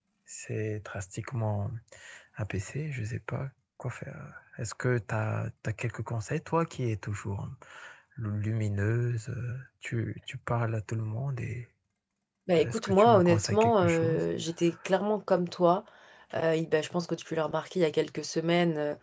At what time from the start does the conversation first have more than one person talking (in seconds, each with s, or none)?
12.6 s